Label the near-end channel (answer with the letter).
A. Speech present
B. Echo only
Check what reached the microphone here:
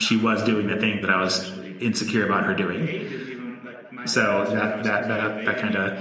A